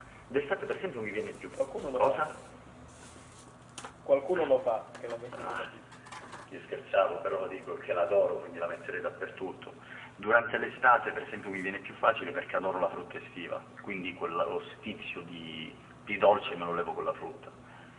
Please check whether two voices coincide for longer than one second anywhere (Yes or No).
No